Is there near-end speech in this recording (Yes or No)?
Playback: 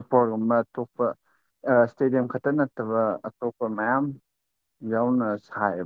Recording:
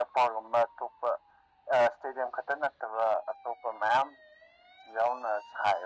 No